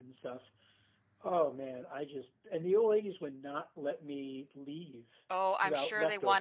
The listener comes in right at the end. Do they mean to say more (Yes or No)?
Yes